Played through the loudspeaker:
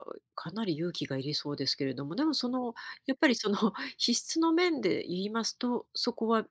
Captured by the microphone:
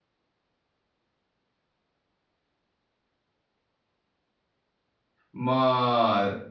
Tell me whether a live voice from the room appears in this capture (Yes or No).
Yes